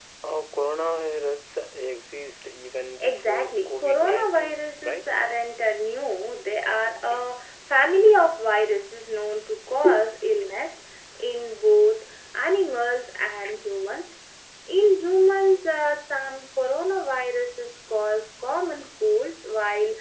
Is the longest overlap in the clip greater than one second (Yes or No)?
Yes